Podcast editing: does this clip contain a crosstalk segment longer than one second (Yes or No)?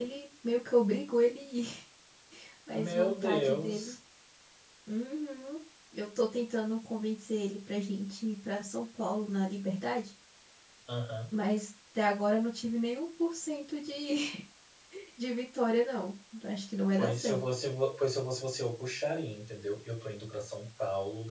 Yes